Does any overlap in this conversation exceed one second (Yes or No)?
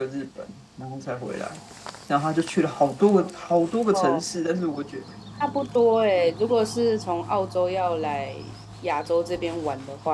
No